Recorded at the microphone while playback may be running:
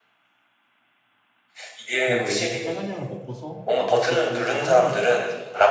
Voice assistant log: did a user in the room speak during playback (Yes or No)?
Yes